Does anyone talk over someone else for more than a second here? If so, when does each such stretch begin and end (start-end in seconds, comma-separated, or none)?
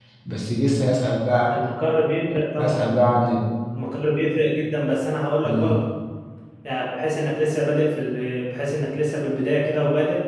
none